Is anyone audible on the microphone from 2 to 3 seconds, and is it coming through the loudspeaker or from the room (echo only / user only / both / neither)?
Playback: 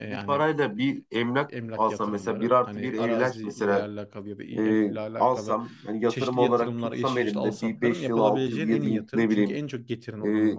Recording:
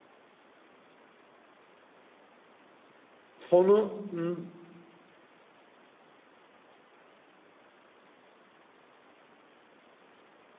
neither